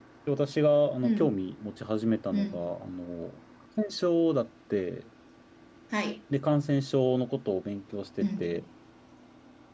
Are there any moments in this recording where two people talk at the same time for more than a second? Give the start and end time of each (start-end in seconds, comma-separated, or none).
none